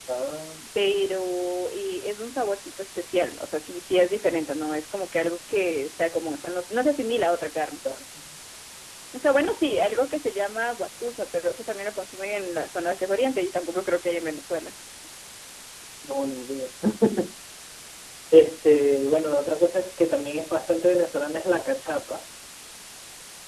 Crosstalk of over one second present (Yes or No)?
No